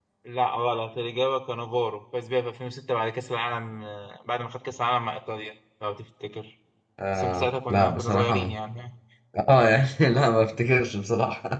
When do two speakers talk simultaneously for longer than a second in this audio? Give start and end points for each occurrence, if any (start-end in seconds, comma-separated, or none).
7.2-8.6